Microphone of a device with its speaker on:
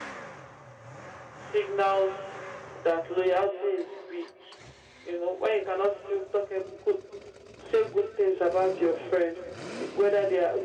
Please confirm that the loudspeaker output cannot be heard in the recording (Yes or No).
No